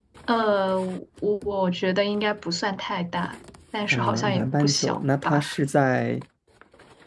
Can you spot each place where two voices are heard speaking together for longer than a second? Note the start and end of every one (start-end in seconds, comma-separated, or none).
3.9-5.5